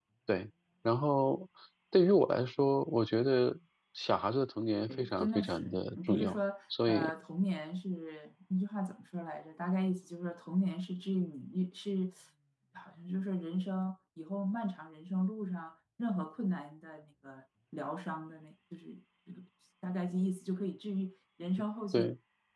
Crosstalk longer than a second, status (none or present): present